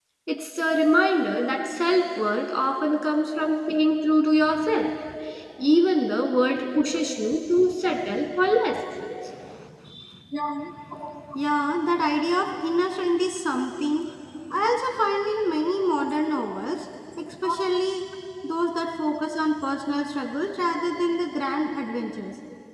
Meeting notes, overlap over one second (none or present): none